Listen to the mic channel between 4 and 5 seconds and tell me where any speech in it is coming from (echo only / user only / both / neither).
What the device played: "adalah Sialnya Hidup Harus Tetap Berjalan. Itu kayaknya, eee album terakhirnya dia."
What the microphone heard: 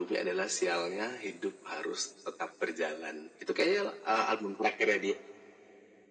echo only